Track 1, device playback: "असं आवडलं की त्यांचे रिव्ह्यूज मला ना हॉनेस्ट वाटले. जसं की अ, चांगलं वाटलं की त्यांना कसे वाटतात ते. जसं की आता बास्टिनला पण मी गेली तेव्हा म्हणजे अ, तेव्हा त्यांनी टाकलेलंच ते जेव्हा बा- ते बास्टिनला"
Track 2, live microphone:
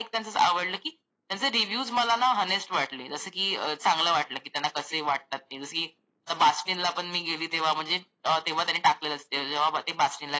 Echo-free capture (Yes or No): No